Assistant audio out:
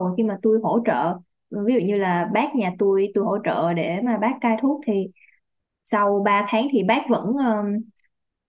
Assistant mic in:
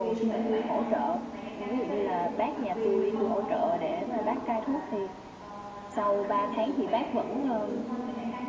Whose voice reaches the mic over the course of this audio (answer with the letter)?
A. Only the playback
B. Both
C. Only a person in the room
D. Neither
B